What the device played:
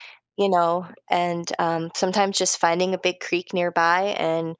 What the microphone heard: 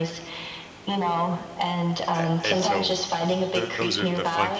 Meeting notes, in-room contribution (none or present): present